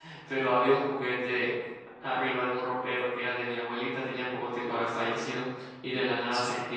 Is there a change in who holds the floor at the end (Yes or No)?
No